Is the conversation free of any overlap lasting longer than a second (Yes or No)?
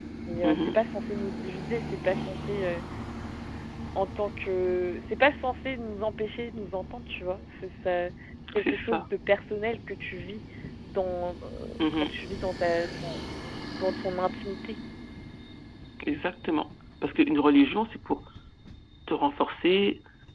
Yes